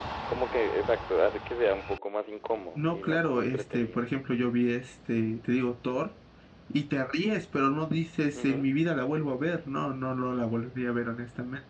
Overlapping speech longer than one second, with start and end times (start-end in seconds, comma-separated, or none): 2.8-4.0